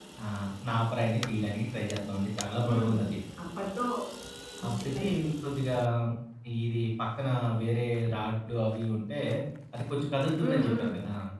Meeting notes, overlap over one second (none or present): none